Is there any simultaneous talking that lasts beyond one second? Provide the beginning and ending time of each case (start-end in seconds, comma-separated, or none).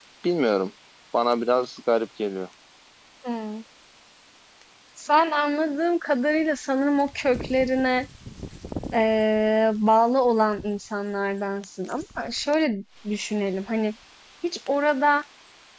none